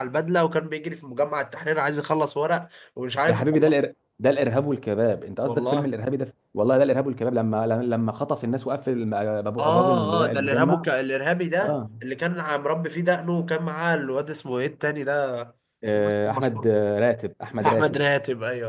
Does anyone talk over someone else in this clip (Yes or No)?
Yes